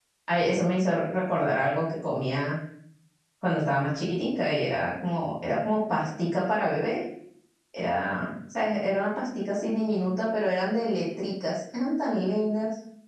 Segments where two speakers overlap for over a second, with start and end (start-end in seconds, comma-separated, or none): none